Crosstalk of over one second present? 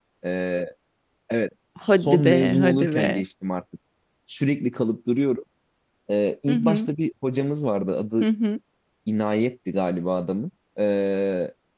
Yes, from 2.0 s

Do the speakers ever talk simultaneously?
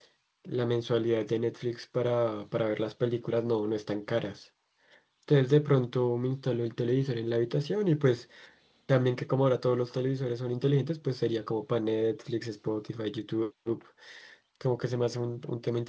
No

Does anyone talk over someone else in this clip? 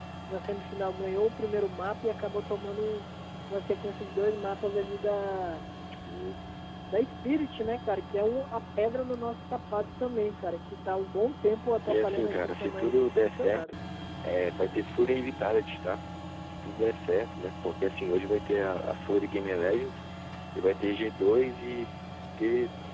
Yes, from 11.9 s

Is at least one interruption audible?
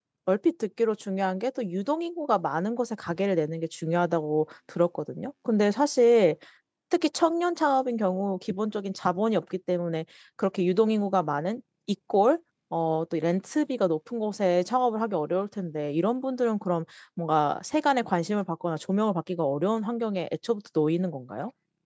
No

